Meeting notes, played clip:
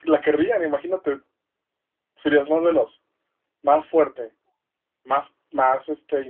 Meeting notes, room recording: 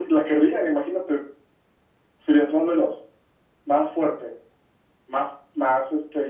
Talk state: echo only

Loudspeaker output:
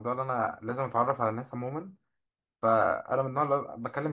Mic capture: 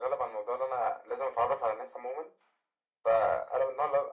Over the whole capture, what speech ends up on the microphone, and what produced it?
echo only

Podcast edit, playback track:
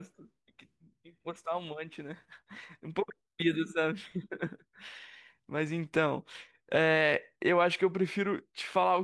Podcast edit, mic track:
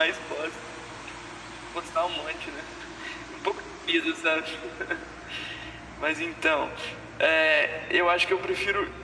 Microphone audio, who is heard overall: echo only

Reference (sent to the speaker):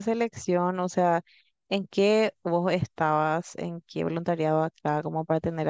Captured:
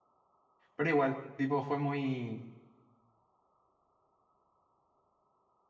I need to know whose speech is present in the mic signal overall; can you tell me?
user only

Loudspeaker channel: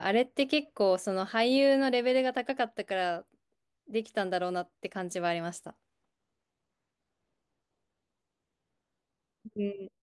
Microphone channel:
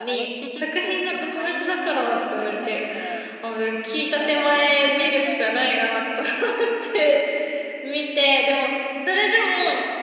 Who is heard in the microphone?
both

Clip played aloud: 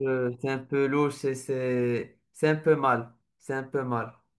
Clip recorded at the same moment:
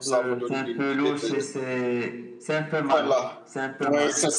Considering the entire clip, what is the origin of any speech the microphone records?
both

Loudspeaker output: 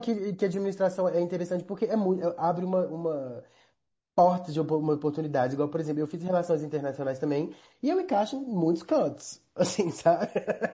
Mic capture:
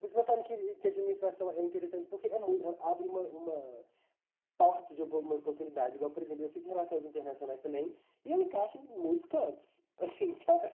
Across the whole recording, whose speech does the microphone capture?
echo only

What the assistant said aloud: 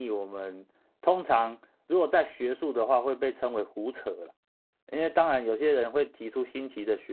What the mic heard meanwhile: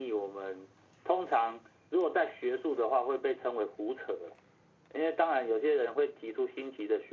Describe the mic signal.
echo only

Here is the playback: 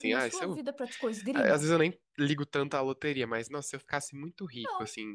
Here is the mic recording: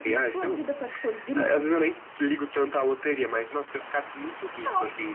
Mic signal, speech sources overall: echo only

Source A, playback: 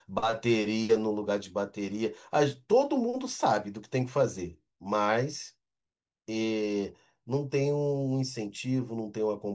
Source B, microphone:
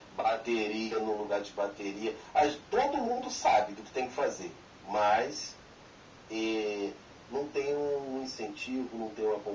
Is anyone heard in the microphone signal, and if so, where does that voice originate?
echo only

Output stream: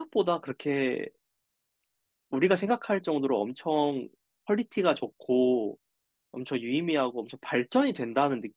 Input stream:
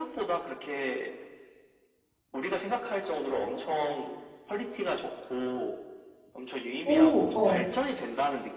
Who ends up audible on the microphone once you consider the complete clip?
both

